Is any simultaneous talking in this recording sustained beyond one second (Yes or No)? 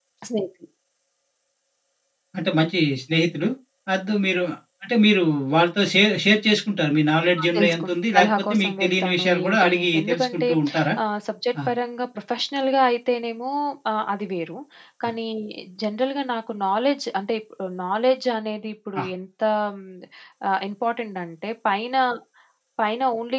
Yes